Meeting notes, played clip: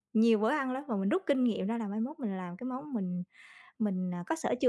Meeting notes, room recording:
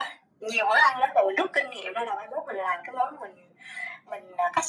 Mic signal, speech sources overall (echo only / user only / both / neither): echo only